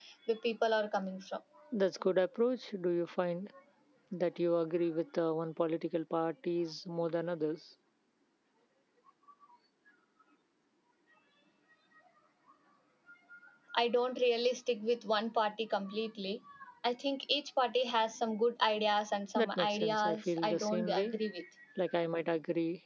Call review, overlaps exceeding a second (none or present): present